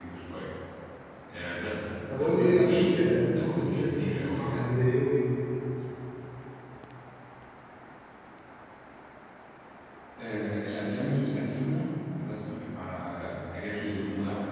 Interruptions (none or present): present